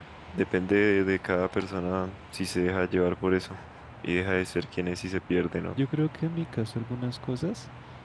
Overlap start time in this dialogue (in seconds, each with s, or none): none